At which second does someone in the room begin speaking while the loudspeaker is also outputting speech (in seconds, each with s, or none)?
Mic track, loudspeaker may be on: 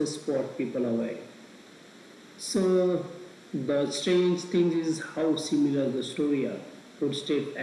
none